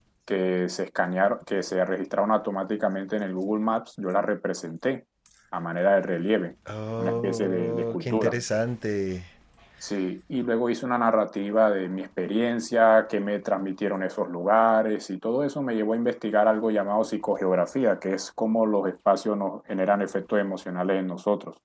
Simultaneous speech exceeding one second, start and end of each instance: 7.0-8.4

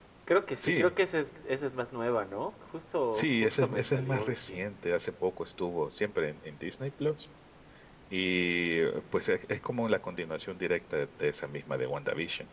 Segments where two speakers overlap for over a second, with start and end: 3.1-4.7

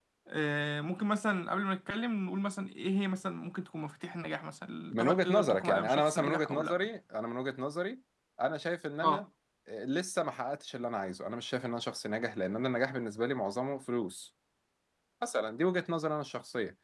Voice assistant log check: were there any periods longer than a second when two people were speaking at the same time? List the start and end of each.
4.9-6.8

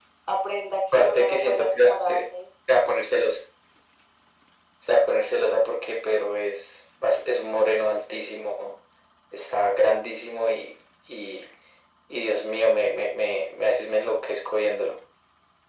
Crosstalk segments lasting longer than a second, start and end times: 0.9-2.2

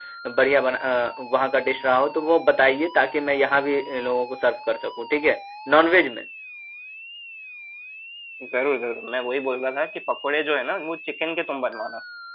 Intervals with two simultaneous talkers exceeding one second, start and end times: none

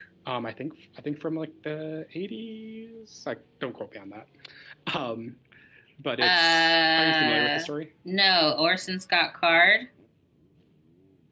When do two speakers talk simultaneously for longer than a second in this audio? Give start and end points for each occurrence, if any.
6.2-7.6

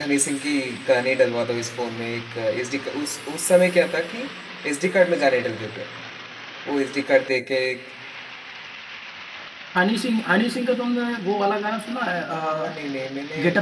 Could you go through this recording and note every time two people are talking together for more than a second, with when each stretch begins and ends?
none

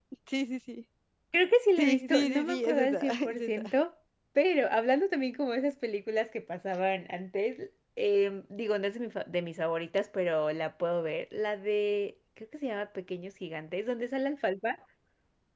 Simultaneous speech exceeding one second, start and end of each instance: 1.8-3.7

